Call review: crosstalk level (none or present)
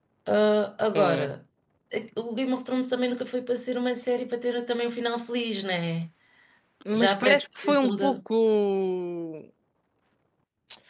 present